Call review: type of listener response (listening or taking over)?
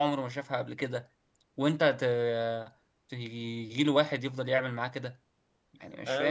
taking over